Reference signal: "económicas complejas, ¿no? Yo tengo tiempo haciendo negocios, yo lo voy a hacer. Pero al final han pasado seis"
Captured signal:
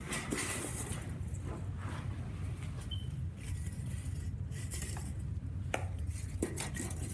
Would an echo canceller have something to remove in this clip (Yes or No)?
No